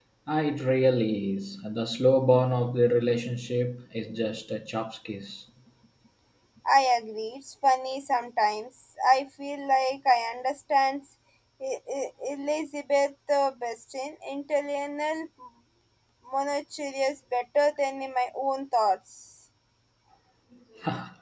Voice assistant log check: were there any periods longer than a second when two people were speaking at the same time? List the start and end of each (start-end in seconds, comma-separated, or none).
none